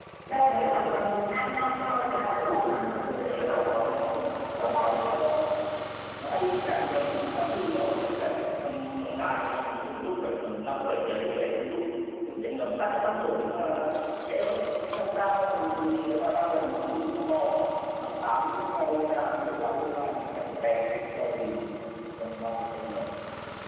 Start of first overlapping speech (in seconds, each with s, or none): 1.3 s